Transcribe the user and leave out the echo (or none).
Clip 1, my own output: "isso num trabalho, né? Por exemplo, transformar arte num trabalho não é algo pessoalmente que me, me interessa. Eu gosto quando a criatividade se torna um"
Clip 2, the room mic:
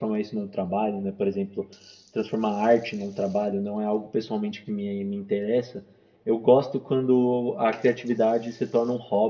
none